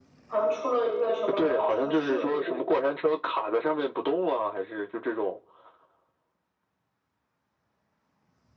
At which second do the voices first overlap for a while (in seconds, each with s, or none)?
1.3 s